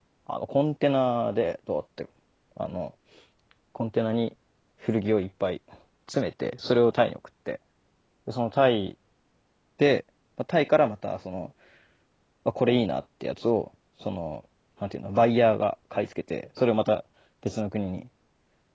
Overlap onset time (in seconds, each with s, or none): none